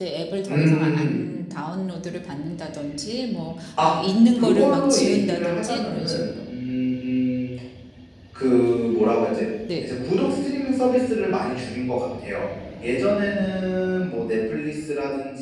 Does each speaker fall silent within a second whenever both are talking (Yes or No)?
No